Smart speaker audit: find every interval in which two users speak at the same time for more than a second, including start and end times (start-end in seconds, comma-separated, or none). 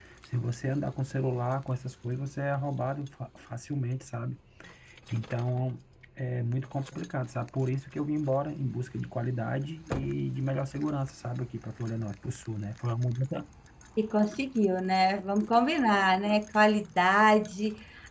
none